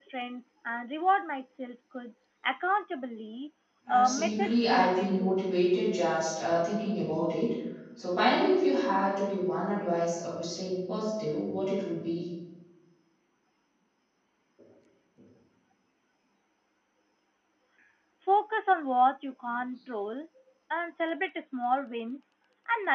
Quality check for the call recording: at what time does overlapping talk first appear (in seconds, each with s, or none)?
3.9 s